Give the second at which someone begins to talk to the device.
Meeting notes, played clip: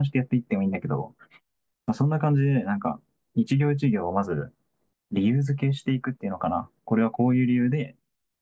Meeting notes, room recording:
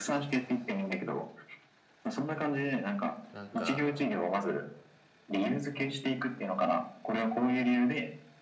3 s

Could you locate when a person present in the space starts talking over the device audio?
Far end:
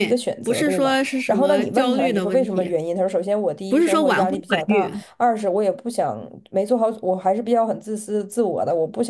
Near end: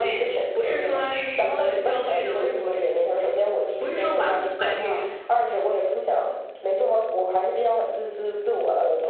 none

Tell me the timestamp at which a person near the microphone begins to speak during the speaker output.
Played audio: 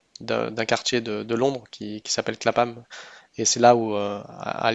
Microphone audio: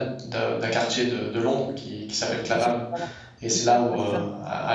3 s

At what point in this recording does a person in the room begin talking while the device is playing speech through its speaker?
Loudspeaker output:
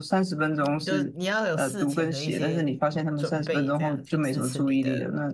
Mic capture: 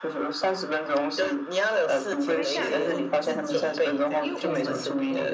2 s

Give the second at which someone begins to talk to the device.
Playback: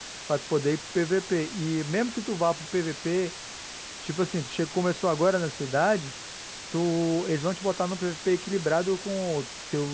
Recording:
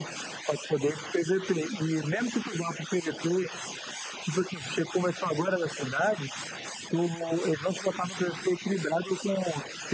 none

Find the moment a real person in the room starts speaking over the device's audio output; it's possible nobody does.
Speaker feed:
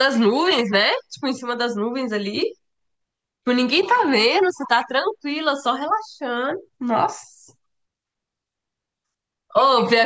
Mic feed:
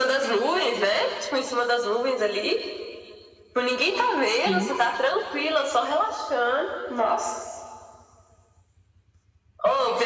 4 s

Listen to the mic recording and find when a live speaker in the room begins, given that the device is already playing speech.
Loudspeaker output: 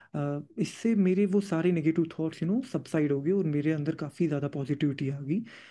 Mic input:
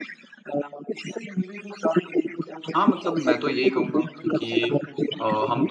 3 s

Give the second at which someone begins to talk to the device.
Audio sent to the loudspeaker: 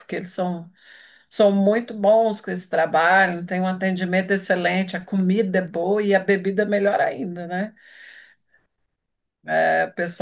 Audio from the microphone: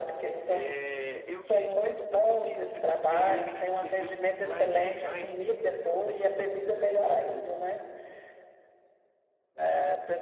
0 s

